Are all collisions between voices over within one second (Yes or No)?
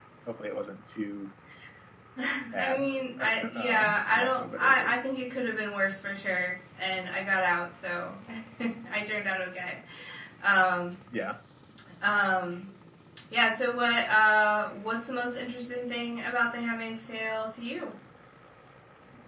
No